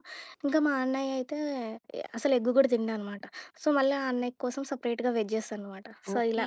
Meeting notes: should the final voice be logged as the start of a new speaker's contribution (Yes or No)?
Yes